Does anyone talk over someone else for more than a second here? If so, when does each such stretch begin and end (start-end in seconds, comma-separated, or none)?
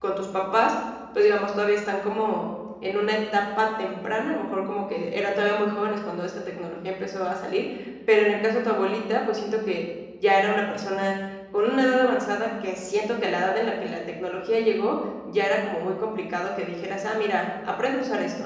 none